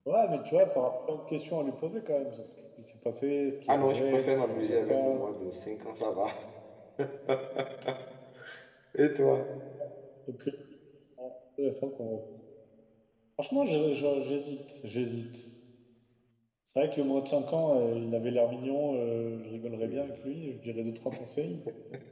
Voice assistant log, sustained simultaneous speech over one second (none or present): present